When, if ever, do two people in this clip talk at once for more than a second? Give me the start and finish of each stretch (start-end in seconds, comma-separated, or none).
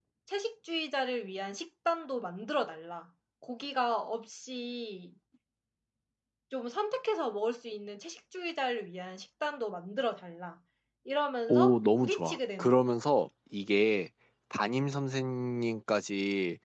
11.5-12.8